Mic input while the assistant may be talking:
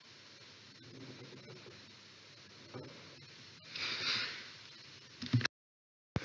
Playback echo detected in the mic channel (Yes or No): No